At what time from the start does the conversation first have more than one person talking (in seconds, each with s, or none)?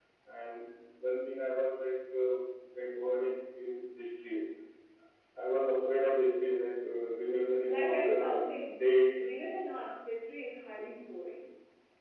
7.6 s